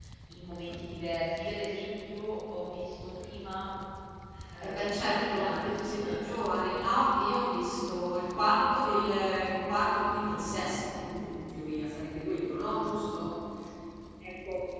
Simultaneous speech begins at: 4.6 s

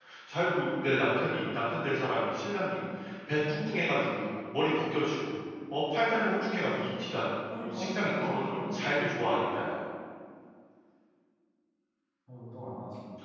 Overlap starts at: 7.6 s

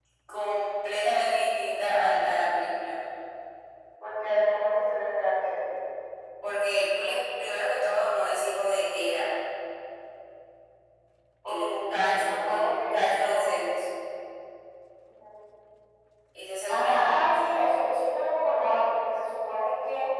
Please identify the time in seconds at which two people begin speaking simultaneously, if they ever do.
11.4 s

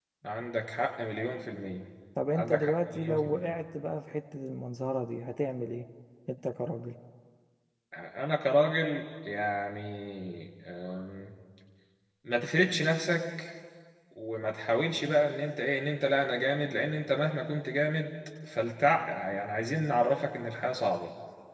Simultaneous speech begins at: 2.3 s

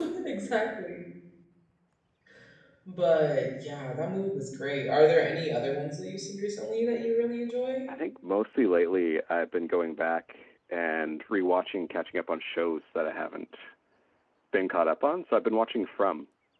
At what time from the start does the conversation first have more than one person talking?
none

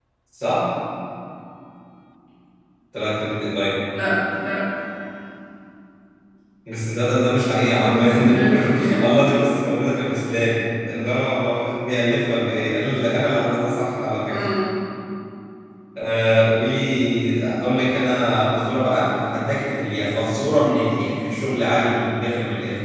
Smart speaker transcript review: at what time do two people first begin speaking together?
7.7 s

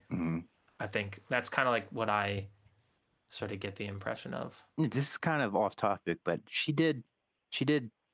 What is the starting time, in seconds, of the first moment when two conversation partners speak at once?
none

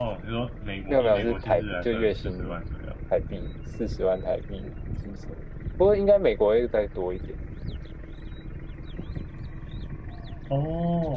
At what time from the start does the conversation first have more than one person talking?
0.9 s

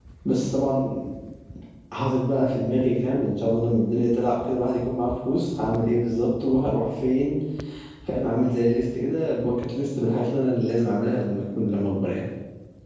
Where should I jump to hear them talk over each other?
none

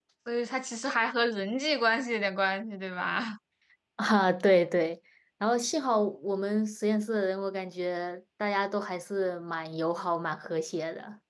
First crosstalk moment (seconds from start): none

